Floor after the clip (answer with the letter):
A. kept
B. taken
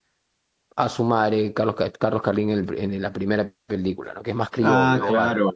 B